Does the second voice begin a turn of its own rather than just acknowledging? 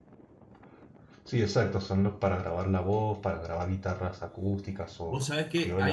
Yes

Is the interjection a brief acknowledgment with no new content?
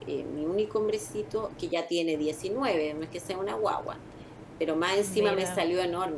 Yes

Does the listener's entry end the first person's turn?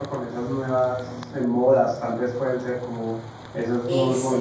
Yes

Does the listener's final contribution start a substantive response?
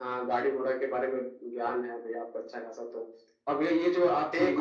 No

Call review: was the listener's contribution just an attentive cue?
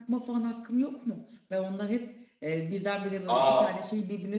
Yes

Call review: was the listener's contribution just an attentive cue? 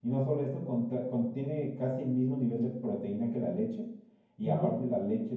Yes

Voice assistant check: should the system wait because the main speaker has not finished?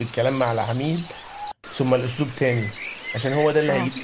Yes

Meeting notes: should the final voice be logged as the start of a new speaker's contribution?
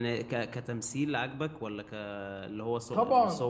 Yes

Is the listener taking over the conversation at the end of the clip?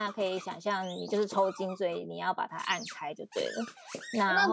Yes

